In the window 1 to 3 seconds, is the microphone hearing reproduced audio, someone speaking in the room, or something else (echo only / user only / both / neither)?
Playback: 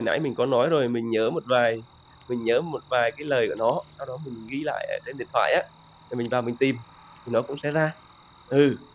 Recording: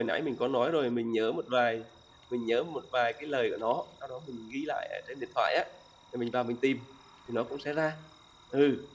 echo only